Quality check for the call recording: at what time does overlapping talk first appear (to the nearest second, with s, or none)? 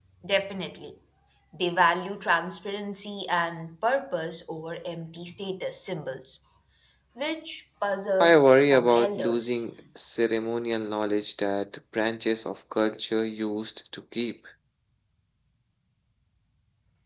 8 s